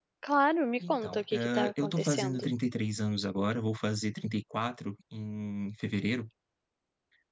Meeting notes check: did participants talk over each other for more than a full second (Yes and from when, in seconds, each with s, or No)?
Yes, from 0.9 s